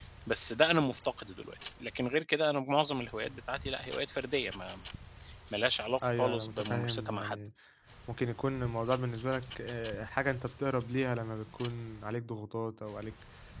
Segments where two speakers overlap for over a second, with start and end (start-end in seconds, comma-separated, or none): 6.0-7.3